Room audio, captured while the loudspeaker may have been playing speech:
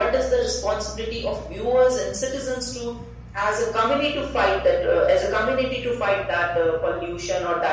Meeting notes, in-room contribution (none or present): none